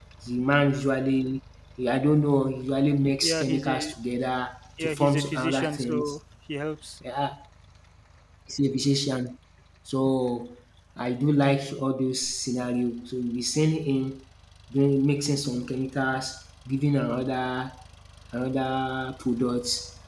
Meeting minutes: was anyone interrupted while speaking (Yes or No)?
Yes